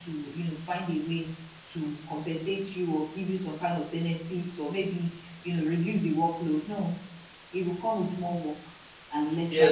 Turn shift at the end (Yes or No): Yes